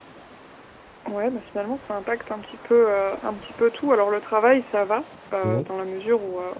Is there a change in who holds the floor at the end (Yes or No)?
No